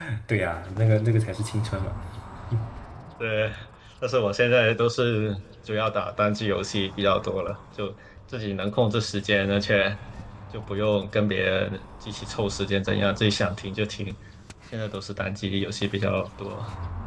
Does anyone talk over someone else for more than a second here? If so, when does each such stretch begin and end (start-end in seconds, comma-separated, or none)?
none